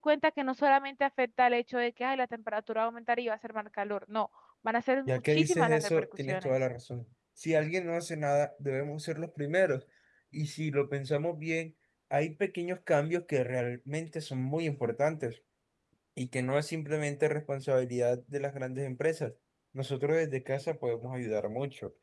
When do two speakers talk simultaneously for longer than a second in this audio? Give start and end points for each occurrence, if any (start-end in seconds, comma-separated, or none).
5.1-6.5